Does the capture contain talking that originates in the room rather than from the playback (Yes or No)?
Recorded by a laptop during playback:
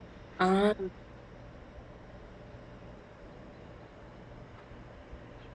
Yes